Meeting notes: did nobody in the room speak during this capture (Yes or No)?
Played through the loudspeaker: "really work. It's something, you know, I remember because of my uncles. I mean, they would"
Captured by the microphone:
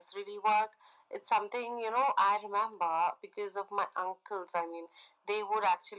Yes